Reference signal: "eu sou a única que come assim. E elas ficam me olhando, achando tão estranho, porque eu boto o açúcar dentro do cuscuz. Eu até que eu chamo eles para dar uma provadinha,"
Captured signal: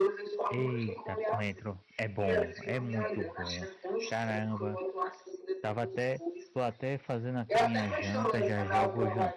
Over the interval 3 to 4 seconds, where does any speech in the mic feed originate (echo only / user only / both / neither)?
both